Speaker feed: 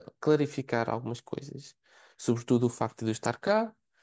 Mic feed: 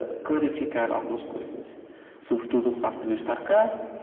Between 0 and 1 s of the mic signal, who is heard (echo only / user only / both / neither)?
echo only